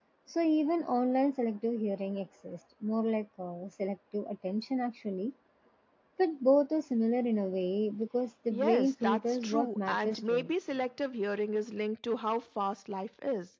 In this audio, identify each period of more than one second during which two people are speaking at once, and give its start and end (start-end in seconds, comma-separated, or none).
8.5-10.5